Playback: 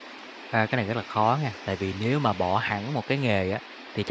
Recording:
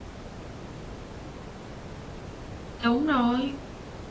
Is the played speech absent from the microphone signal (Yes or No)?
Yes